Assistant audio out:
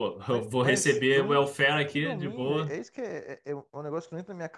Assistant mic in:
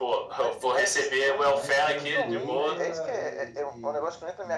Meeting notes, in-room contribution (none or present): present